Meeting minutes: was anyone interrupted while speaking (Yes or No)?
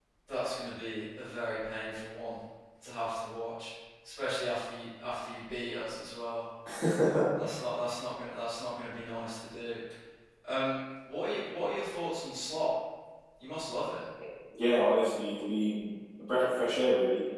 No